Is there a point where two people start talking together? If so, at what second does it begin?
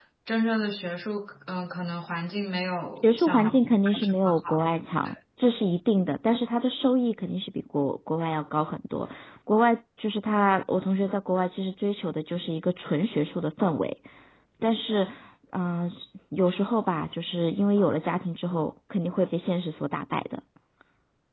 3.0 s

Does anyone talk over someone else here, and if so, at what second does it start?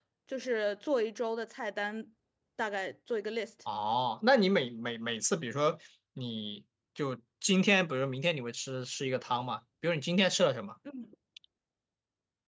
none

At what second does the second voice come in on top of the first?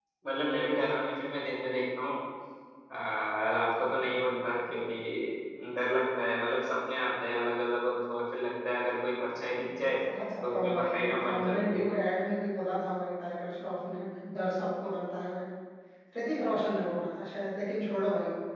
10.4 s

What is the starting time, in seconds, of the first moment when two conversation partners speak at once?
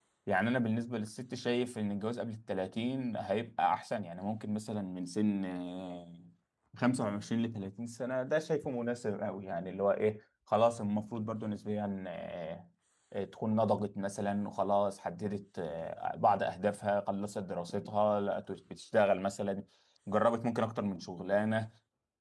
none

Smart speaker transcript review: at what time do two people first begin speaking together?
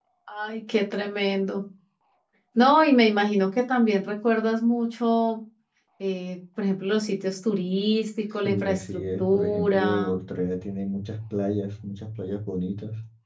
8.4 s

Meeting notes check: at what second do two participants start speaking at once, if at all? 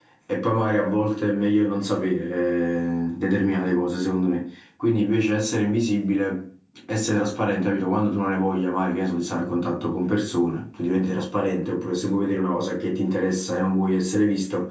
none

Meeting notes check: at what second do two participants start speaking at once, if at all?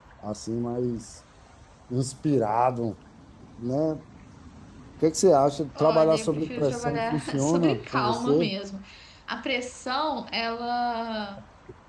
5.8 s

